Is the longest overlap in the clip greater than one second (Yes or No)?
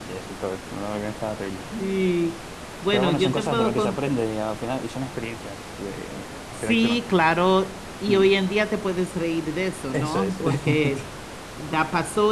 Yes